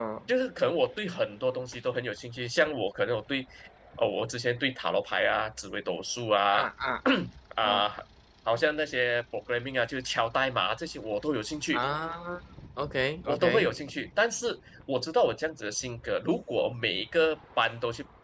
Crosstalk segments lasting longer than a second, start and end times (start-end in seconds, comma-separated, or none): none